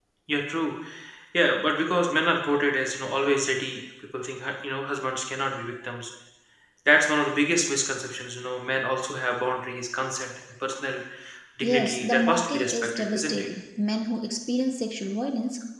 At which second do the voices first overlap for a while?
11.6 s

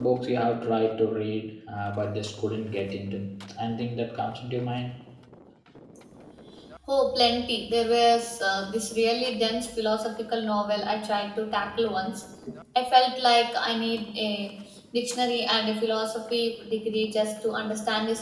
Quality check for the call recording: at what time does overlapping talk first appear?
none

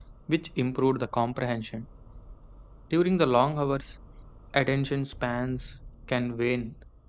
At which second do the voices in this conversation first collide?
none

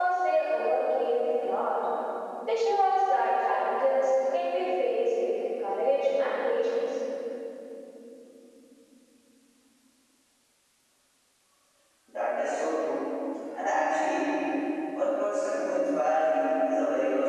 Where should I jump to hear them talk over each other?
none

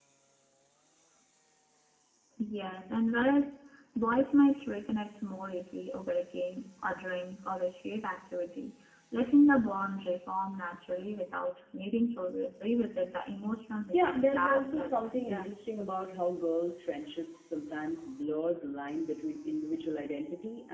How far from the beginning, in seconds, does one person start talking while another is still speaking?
13.9 s

